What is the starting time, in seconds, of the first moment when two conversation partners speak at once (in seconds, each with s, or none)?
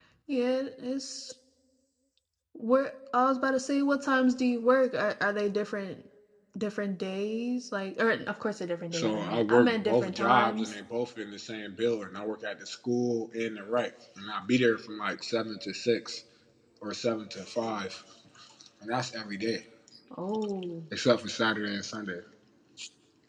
8.9 s